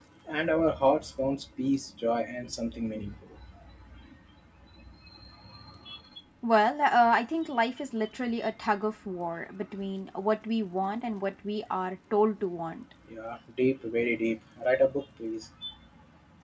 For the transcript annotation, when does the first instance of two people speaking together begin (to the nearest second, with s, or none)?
none